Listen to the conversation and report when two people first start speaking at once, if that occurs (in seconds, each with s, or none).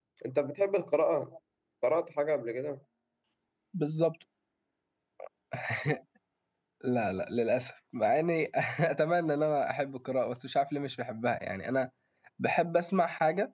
none